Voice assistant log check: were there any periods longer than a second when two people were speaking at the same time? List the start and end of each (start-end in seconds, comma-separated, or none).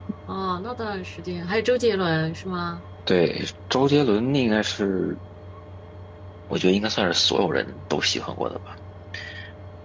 none